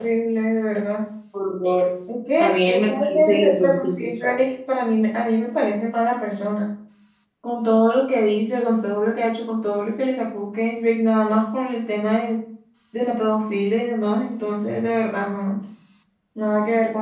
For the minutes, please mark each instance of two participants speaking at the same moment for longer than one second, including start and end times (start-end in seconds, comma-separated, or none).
2.4-4.0